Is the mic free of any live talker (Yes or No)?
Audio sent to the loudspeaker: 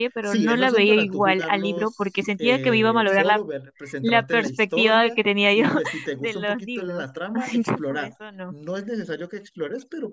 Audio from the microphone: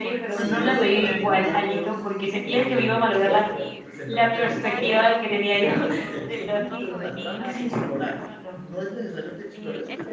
No